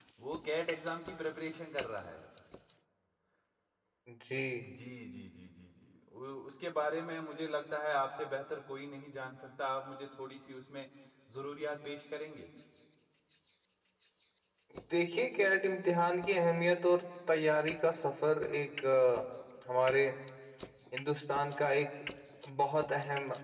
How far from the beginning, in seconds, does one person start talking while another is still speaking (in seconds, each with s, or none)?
none